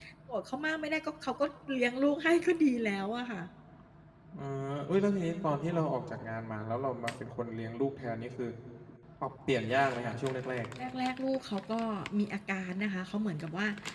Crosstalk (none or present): none